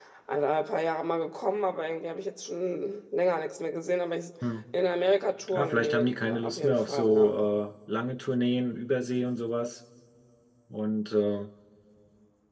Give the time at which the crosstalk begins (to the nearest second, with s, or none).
6 s